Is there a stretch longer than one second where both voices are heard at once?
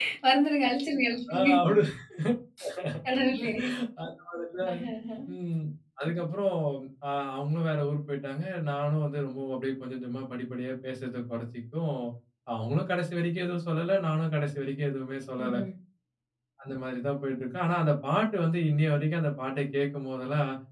No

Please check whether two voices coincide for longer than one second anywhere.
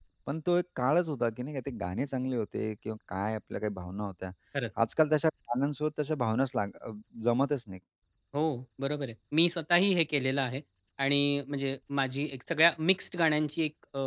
No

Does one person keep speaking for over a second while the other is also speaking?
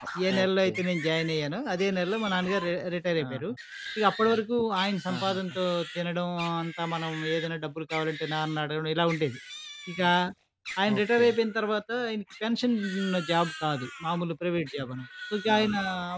No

